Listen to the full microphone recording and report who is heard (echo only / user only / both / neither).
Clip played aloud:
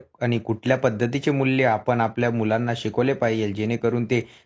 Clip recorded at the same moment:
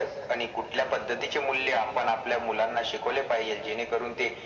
echo only